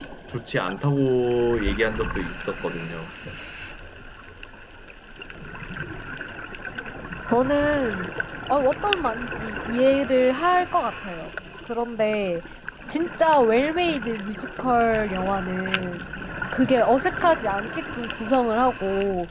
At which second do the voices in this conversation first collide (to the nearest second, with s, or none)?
none